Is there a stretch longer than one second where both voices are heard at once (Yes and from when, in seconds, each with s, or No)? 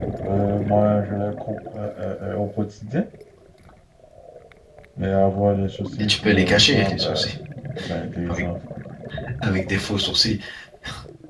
Yes, from 6.0 s